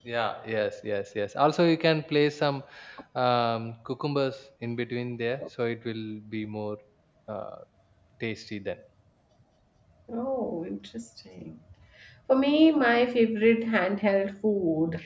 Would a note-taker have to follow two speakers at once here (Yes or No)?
No